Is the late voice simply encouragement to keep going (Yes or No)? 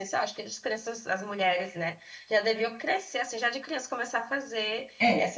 No